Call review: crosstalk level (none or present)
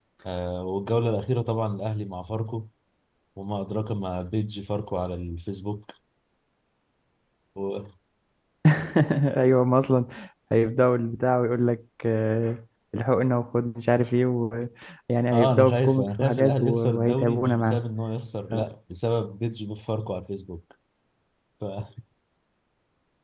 present